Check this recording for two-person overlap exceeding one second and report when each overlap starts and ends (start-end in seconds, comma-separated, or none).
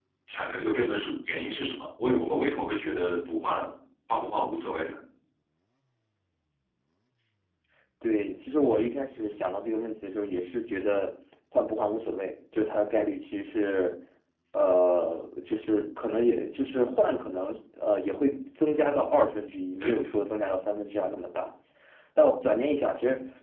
none